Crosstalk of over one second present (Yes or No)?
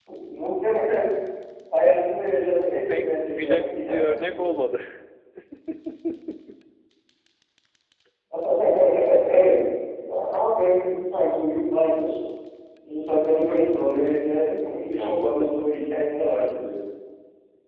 Yes